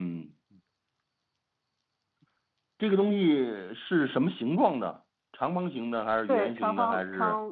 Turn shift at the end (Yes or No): Yes